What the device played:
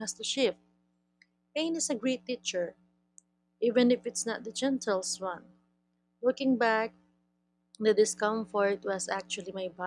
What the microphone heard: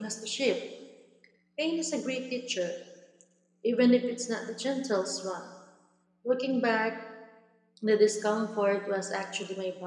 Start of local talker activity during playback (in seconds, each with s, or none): none